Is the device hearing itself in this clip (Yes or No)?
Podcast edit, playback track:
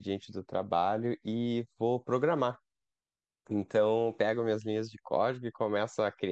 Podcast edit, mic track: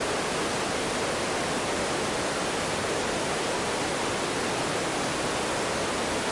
No